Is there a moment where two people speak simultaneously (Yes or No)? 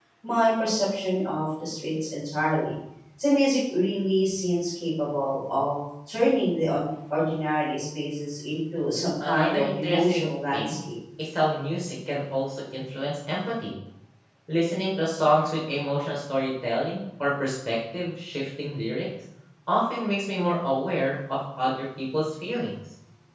Yes